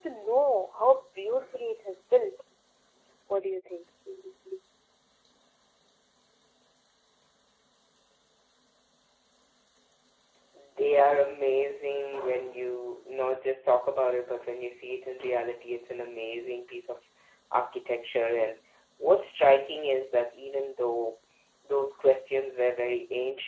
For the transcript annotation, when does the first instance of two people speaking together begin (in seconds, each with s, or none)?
none